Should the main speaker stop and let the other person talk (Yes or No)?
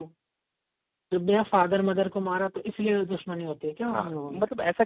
Yes